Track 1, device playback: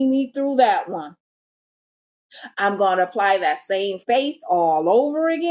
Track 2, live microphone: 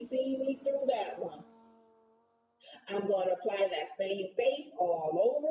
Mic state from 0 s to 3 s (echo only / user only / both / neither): echo only